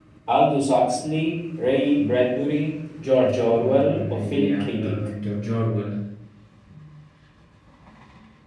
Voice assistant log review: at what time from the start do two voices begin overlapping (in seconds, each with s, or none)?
3.5 s